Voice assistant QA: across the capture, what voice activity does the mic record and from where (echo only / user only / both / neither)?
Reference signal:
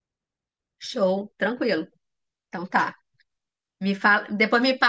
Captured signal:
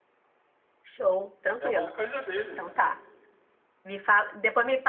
both